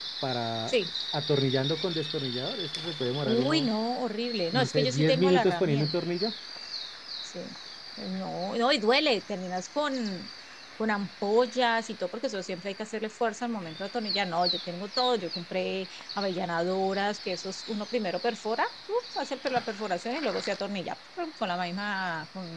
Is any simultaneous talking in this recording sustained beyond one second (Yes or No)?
Yes